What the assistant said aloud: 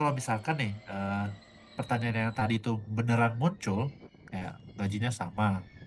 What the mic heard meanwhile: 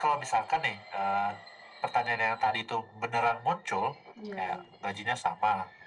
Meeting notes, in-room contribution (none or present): present